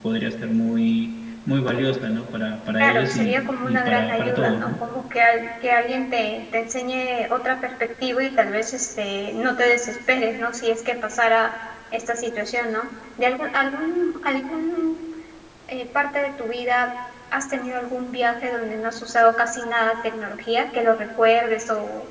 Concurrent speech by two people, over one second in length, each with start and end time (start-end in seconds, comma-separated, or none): 2.8-4.7